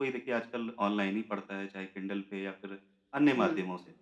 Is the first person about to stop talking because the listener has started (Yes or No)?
No